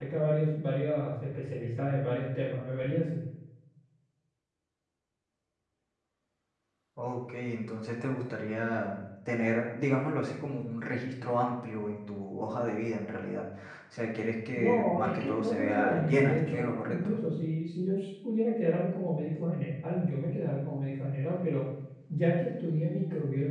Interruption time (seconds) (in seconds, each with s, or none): 14.6 s